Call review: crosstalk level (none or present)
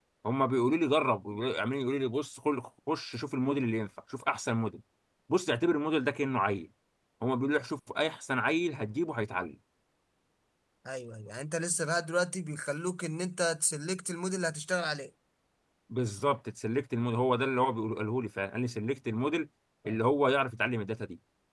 none